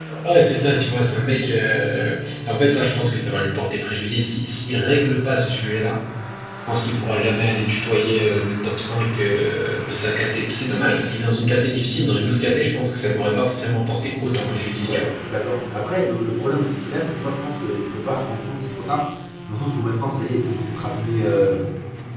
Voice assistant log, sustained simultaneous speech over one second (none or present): none